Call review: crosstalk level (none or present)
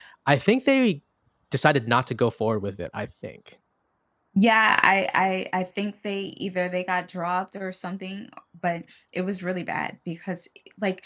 none